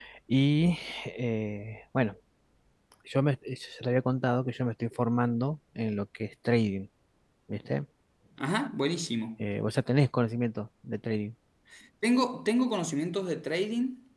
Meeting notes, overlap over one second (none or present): none